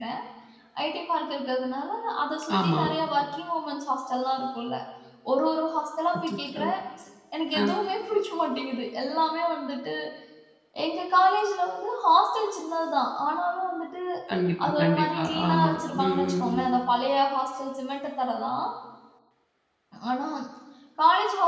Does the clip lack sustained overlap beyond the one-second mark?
No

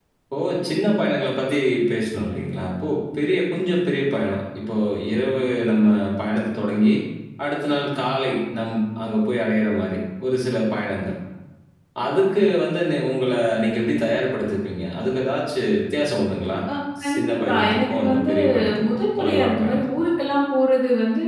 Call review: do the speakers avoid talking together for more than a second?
No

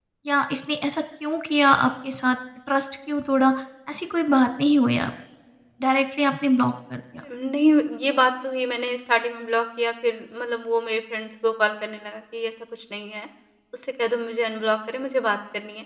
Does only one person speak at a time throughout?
Yes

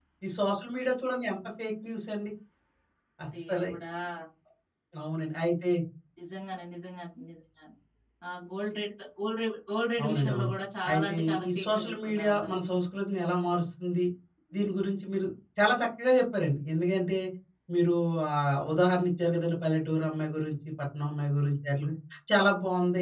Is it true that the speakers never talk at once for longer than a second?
No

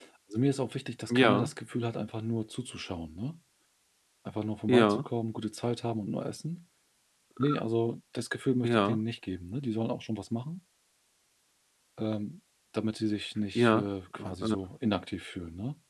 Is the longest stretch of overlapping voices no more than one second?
Yes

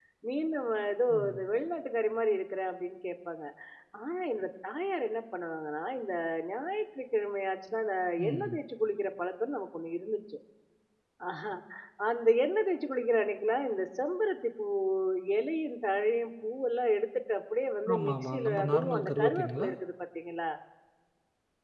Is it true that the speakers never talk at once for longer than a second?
No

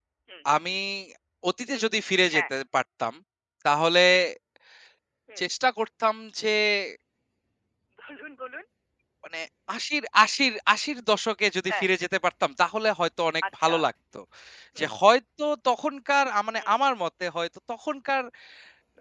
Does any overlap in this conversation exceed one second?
No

